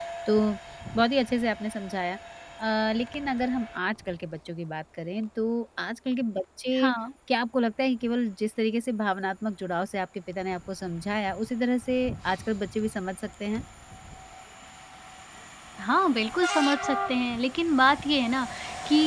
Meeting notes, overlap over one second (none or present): none